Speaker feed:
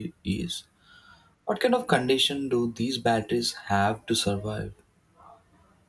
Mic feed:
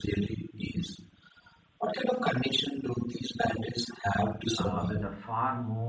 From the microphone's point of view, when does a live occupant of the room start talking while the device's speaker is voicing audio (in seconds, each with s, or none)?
4.5 s